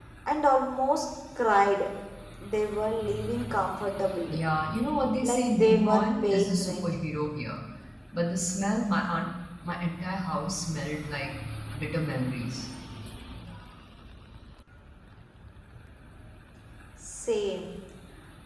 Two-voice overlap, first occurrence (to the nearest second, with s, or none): 5 s